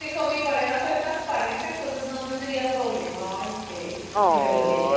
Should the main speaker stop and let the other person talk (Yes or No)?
Yes